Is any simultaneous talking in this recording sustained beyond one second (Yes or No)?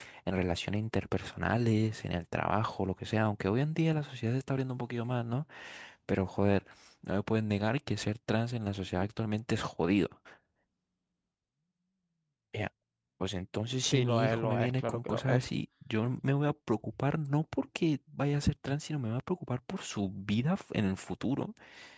Yes